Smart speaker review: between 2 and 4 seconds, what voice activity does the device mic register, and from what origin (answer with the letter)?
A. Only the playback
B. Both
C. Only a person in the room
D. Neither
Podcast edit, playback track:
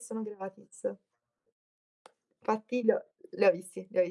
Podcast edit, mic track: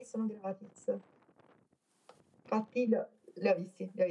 A